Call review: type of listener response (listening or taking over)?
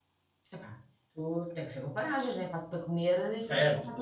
taking over